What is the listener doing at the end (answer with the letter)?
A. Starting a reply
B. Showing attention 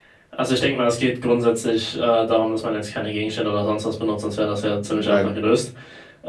B